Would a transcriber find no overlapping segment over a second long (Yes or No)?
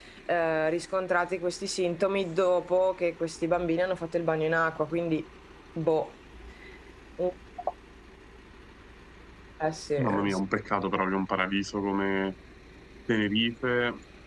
Yes